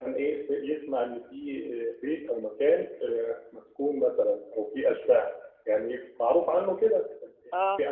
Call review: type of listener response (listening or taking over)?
listening